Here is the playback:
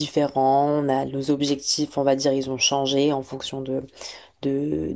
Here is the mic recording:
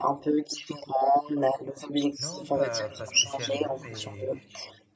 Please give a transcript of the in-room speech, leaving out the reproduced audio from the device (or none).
Non, pas, pas spécialement, mais,